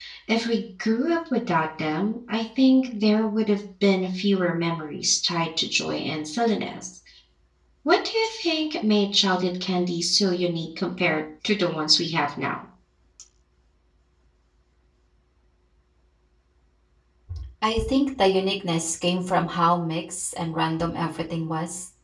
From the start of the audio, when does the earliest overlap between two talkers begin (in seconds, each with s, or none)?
none